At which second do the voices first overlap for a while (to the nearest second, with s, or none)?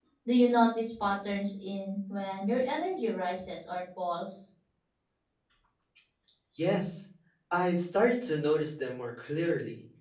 none